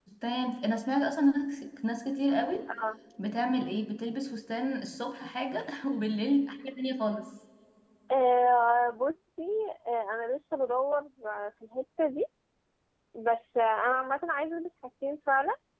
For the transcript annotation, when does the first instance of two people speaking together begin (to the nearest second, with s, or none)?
none